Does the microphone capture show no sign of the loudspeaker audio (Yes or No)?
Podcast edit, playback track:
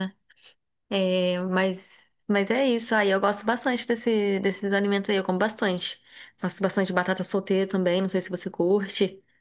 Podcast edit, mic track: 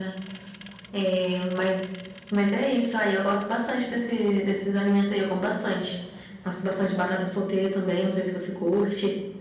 No